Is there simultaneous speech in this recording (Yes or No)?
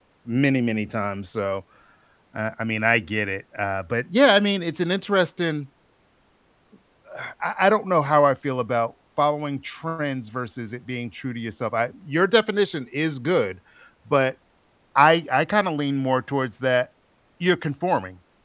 No